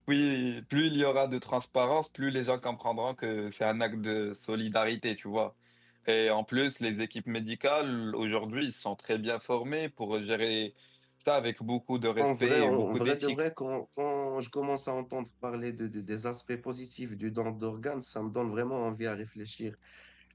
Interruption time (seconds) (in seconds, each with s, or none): 12.2 s